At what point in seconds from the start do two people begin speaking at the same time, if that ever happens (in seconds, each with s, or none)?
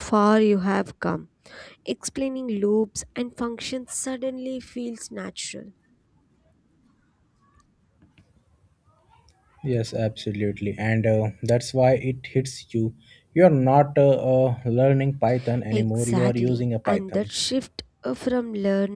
15.7 s